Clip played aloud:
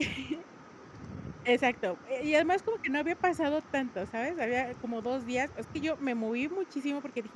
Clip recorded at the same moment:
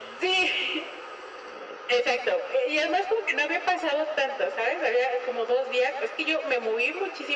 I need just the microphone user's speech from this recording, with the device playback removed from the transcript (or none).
none